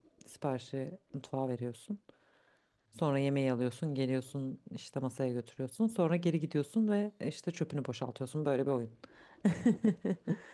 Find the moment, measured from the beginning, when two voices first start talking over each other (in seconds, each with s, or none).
none